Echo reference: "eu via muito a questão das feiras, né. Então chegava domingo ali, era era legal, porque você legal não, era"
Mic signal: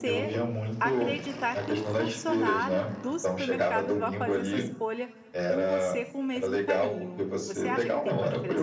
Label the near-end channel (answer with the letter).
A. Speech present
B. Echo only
A